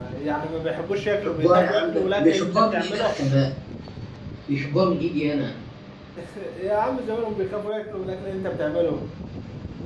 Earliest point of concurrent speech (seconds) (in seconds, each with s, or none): 1.2 s